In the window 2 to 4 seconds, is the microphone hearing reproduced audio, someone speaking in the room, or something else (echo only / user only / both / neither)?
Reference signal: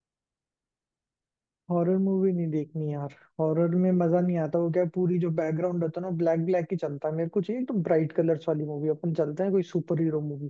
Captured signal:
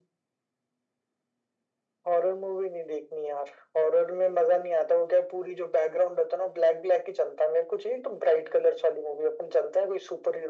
echo only